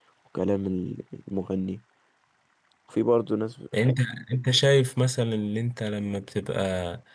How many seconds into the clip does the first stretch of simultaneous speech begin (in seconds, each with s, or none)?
none